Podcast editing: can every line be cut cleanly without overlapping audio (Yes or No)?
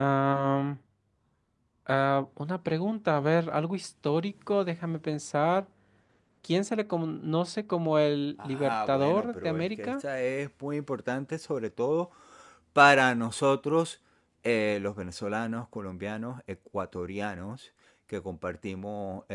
No